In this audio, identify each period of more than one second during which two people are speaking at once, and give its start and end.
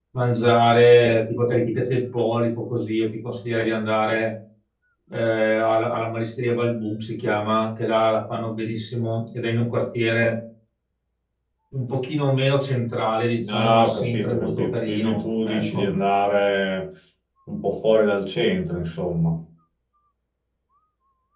13.4-15.8

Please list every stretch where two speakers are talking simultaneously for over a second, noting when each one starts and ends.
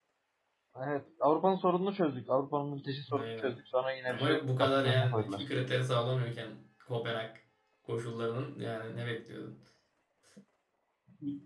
4.1-5.4

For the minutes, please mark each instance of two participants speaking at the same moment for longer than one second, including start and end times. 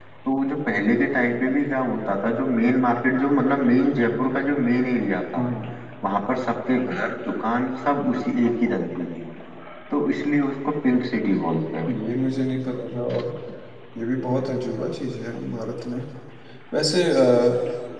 none

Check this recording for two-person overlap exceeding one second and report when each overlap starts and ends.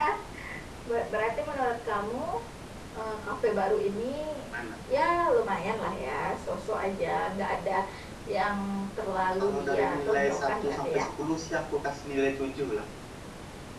9.4-11.0

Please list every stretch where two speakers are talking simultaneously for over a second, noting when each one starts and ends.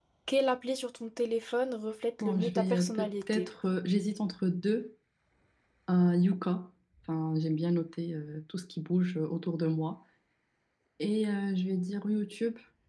2.2-3.5

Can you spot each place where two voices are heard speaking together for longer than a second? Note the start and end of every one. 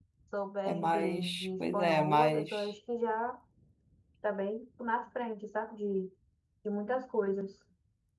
0.6-2.7

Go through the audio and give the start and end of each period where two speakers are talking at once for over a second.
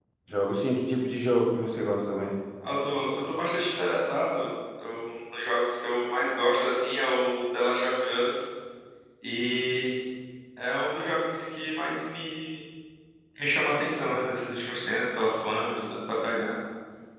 none

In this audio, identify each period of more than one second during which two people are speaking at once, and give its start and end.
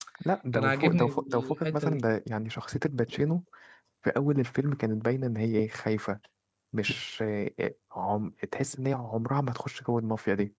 0.5-2.0

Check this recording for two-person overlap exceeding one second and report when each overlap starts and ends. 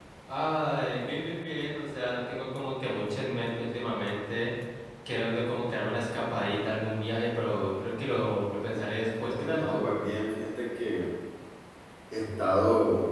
none

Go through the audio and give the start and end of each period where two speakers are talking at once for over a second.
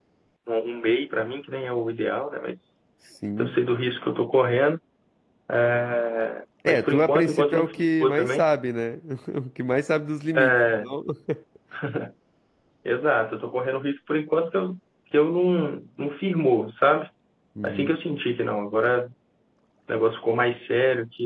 6.7-8.4

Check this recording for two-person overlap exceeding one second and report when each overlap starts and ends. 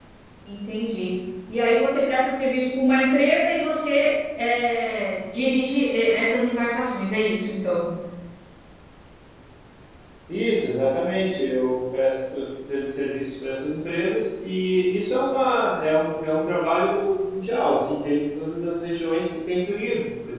none

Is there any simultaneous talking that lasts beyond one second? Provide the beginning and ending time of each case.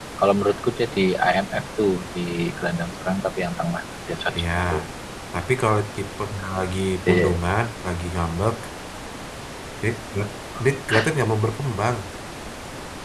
none

